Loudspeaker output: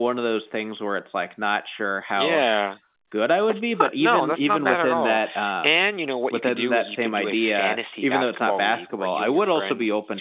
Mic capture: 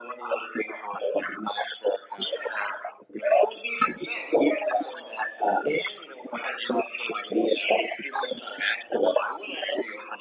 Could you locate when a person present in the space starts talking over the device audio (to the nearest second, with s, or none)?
none